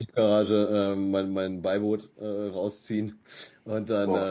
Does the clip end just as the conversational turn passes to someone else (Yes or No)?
No